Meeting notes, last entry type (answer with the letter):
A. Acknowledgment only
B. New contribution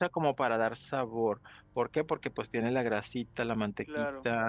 A